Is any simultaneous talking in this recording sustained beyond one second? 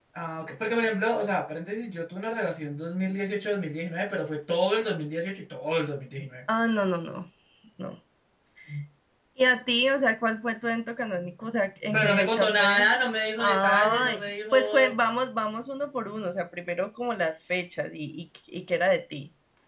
Yes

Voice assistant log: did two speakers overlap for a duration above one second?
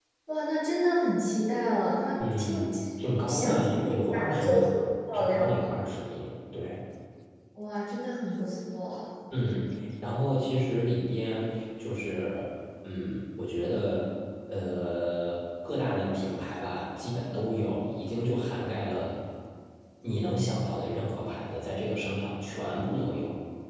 Yes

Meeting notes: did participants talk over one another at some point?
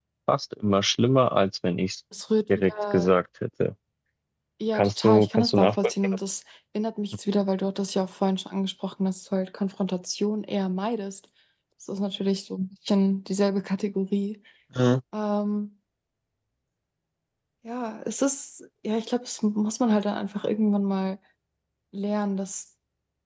Yes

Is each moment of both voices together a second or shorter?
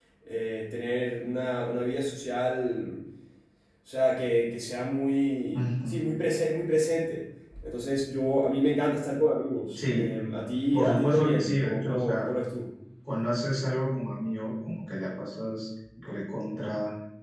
No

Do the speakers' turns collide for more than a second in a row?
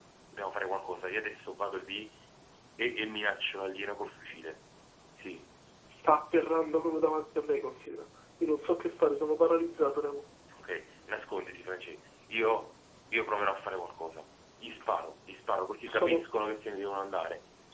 No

